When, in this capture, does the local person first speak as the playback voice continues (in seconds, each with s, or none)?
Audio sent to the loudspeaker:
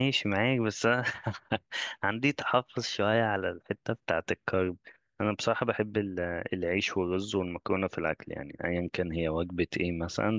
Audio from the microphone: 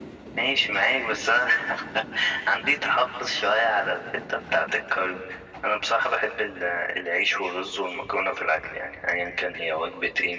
none